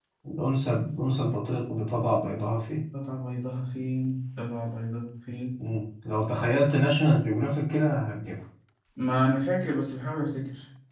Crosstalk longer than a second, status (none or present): none